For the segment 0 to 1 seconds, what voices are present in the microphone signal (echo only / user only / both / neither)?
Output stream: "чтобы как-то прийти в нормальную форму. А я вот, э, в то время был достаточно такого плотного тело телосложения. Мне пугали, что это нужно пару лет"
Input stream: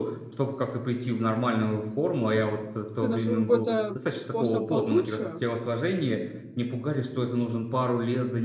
echo only